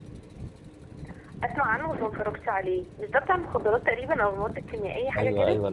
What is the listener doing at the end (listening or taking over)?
taking over